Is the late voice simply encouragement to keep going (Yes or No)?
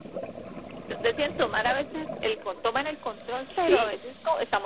Yes